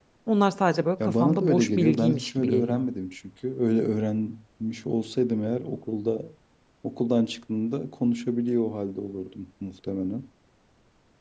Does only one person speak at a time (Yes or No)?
No